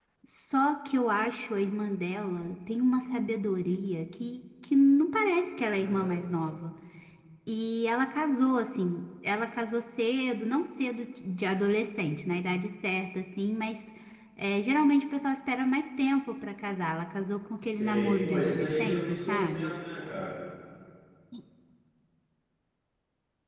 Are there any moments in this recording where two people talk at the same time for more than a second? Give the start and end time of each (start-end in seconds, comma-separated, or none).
17.6-19.8